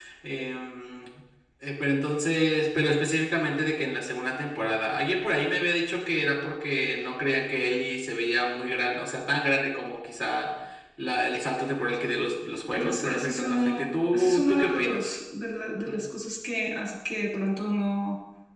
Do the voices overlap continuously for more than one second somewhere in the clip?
Yes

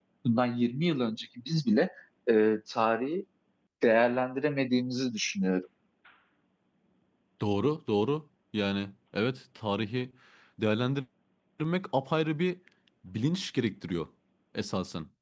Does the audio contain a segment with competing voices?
No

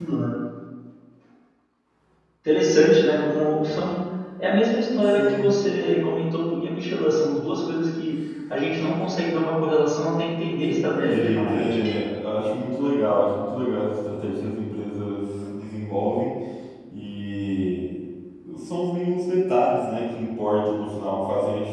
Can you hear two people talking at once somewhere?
Yes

